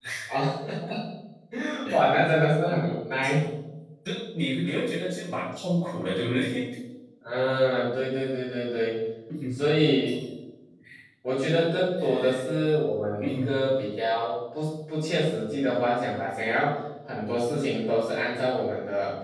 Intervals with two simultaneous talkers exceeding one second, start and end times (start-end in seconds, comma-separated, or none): none